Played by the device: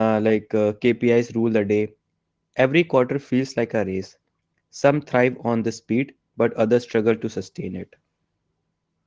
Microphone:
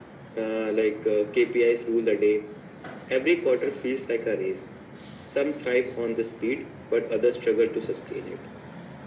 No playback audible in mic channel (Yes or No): No